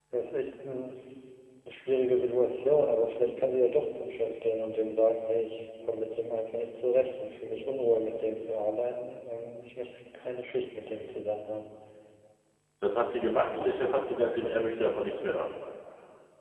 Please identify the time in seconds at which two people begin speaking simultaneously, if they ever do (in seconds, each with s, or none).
none